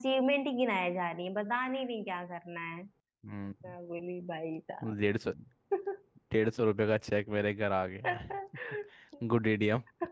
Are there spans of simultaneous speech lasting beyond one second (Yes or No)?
No